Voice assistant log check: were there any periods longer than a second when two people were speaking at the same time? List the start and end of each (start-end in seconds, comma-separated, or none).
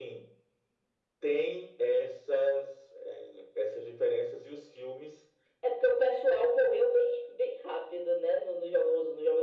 none